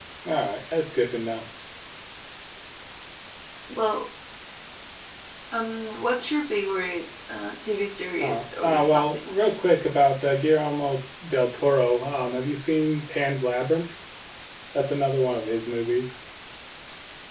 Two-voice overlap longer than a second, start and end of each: 8.2-9.5

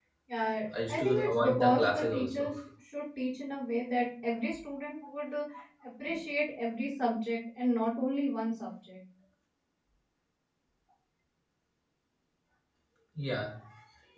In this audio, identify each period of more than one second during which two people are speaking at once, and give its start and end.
0.9-2.5

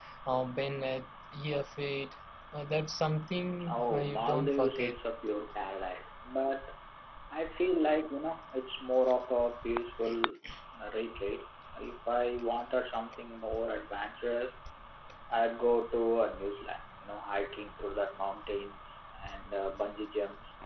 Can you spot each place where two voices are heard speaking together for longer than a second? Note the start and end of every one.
3.7-5.0

